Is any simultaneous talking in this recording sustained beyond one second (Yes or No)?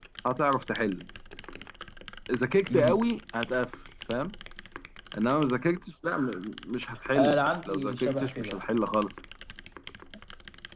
Yes